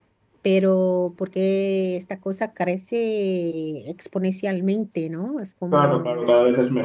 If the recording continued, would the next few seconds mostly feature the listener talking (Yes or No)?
Yes